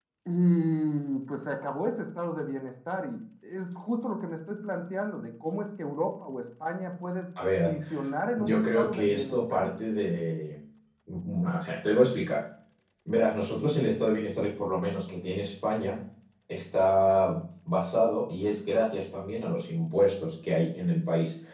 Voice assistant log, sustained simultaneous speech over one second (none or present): present